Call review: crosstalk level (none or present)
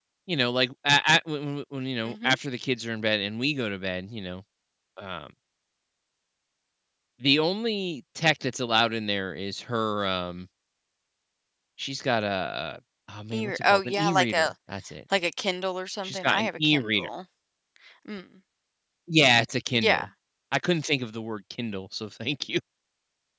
present